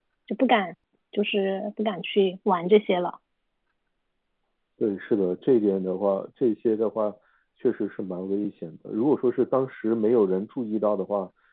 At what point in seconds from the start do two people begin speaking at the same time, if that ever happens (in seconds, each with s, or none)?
none